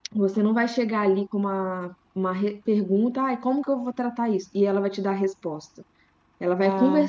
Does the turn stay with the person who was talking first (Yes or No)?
Yes